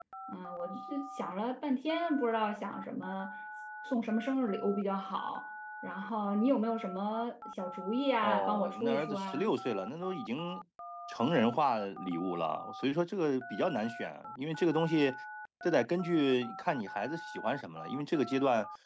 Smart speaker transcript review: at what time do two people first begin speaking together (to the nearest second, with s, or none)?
8 s